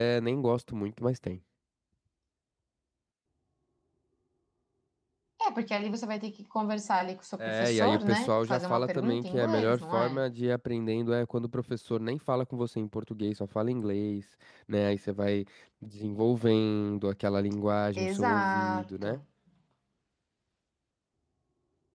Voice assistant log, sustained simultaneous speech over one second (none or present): present